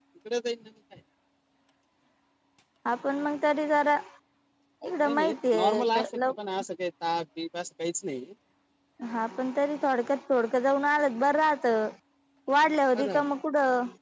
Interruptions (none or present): present